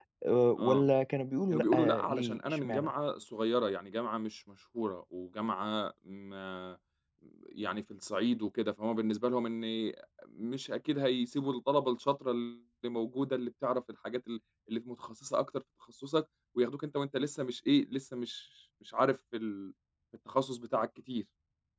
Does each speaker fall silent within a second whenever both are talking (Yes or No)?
No